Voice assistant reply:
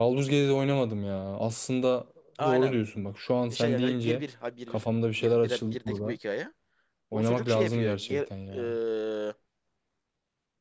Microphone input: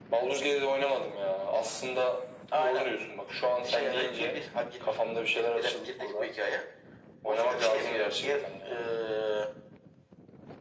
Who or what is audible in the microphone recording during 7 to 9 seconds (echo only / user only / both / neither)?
echo only